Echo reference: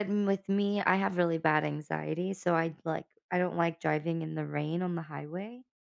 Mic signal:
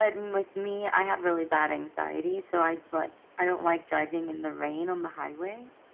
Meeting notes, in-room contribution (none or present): none